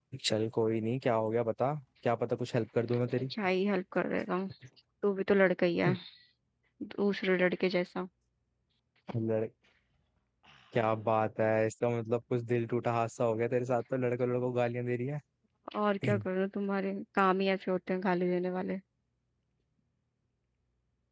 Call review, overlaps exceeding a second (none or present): none